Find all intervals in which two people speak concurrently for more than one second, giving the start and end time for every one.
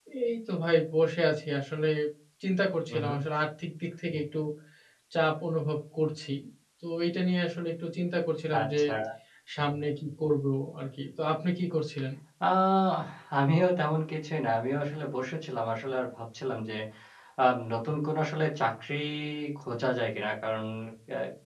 none

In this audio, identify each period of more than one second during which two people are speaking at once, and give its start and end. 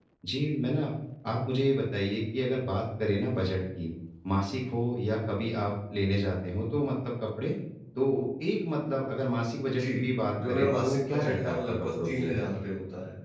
10.5-12.3

